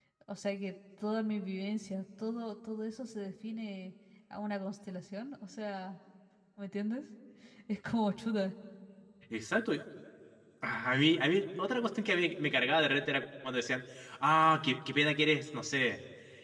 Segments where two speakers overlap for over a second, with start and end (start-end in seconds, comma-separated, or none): none